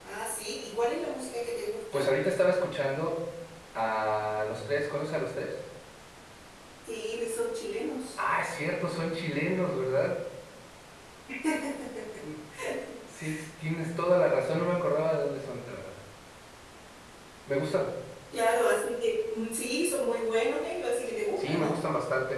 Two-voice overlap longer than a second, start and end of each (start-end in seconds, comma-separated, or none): none